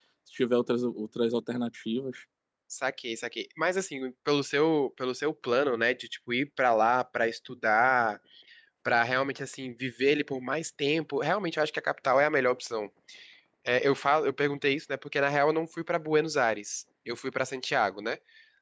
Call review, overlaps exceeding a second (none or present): none